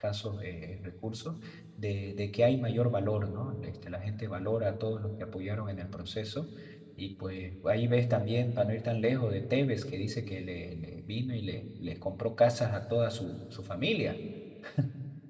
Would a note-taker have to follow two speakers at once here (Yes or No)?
No